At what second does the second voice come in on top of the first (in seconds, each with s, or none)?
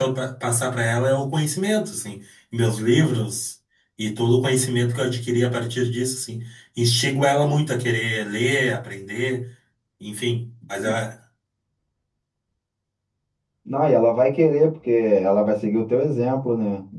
none